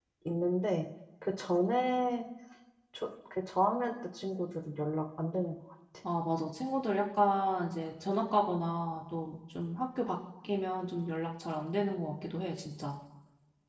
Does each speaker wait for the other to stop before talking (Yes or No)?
Yes